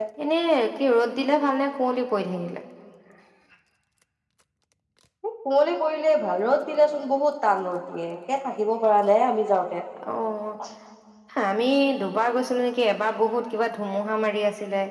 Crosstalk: none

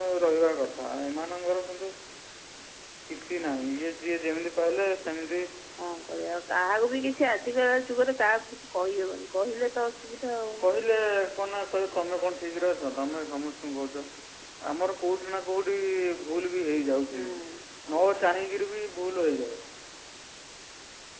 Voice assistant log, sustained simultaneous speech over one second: none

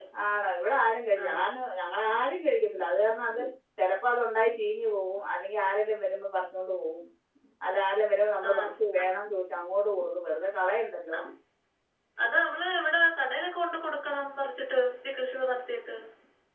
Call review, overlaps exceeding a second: none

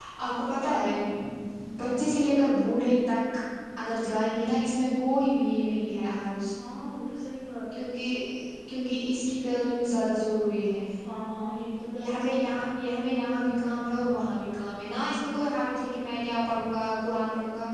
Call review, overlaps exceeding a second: none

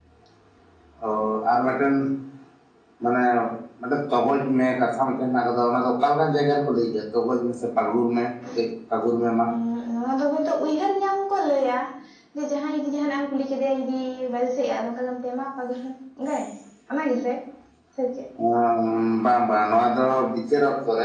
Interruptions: none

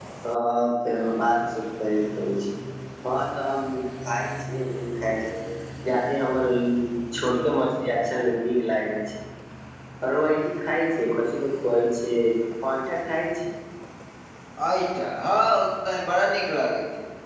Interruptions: none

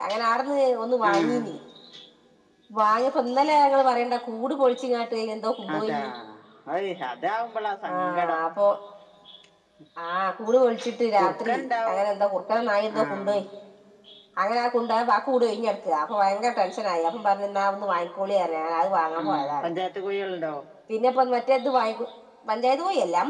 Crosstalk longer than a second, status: none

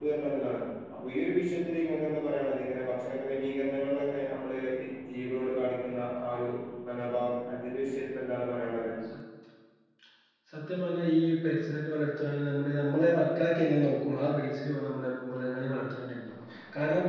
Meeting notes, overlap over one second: none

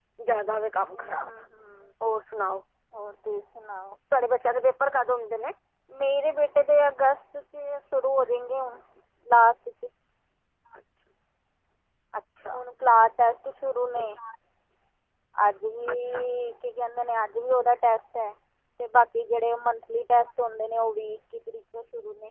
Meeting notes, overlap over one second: none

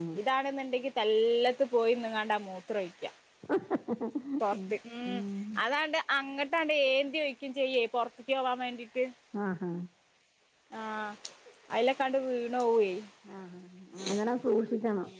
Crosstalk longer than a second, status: none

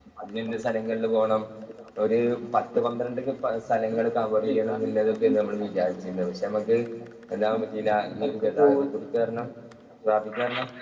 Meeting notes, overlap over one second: present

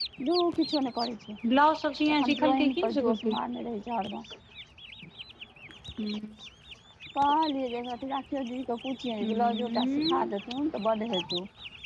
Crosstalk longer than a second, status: present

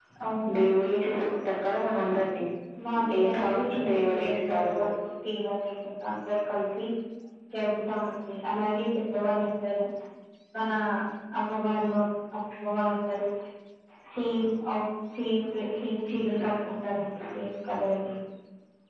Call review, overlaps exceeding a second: present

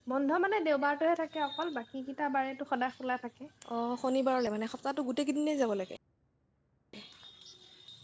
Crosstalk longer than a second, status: none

